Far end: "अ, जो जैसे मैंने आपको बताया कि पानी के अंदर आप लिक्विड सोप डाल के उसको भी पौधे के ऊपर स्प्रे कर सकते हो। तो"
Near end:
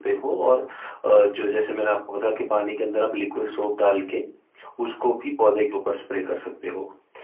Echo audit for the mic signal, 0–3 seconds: echo only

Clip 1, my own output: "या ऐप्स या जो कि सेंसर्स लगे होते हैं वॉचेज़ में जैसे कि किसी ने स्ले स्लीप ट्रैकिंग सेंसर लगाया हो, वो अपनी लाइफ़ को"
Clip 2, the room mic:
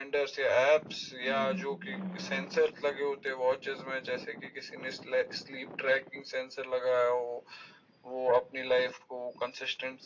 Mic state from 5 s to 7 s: echo only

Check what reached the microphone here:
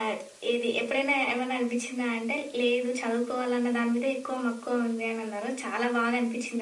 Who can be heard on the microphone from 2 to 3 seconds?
echo only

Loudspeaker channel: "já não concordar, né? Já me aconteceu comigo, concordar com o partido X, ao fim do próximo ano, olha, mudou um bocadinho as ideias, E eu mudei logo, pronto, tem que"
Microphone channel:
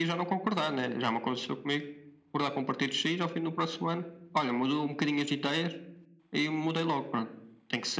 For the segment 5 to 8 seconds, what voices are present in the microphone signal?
echo only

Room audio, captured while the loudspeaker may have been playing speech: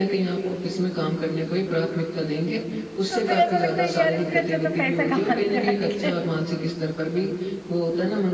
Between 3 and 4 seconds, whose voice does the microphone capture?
both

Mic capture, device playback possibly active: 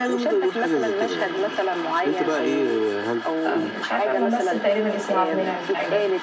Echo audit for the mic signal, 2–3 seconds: echo only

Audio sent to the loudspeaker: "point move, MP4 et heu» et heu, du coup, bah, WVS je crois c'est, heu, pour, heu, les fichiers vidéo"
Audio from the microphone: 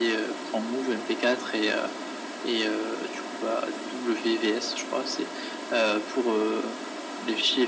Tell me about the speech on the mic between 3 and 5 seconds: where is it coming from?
echo only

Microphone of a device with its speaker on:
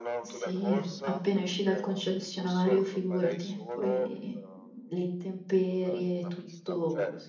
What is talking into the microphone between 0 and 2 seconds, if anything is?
both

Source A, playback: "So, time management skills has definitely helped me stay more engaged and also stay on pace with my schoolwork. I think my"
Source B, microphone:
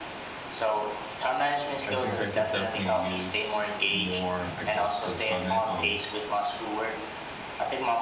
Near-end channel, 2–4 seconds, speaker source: both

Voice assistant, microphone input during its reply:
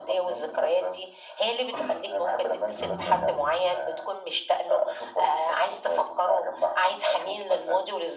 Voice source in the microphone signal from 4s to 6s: echo only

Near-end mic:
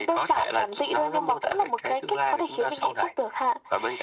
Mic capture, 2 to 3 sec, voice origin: echo only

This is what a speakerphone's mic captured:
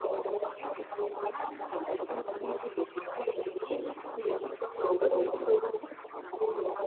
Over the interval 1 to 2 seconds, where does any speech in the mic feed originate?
echo only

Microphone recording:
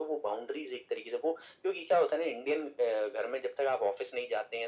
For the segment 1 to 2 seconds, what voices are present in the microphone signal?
echo only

